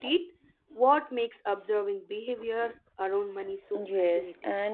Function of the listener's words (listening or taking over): taking over